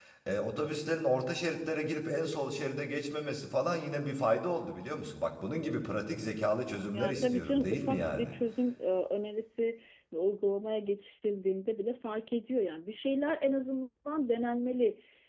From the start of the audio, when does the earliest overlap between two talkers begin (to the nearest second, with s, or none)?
7 s